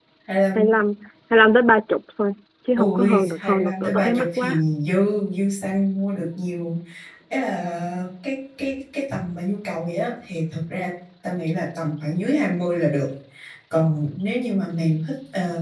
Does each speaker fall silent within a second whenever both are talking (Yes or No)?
No